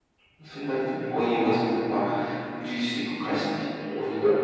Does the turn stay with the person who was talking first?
No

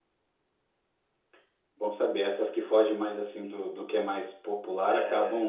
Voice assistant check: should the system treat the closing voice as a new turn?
No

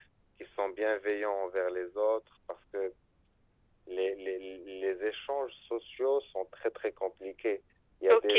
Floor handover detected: Yes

